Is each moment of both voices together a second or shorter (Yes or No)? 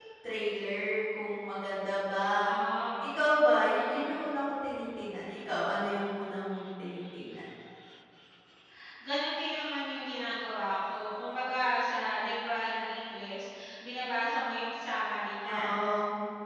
Yes